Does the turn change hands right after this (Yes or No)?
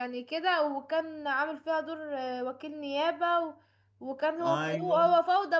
No